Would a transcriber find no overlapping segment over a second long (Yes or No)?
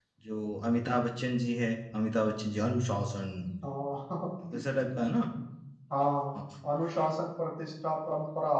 Yes